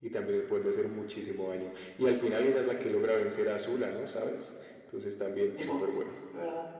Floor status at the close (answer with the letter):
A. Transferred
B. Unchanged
A